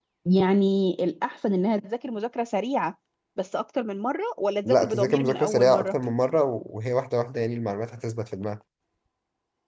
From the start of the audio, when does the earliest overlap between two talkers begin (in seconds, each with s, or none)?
4.6 s